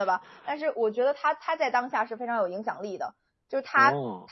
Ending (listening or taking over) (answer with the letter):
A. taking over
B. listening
B